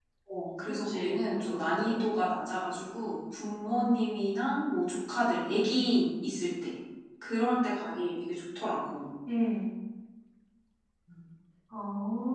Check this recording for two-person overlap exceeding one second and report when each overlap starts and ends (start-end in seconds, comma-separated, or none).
0.7-2.0